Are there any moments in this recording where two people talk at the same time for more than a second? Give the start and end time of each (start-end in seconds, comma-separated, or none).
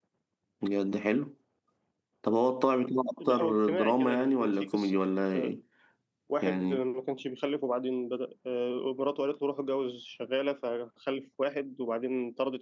3.3-5.0